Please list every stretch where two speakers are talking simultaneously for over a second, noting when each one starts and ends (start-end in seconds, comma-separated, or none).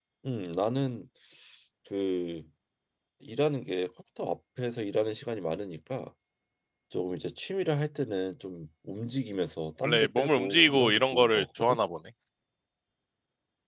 9.8-11.8